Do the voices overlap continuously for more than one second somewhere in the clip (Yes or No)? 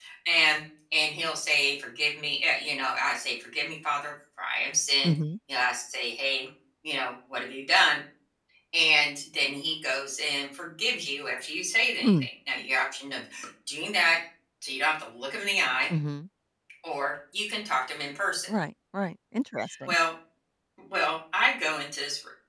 No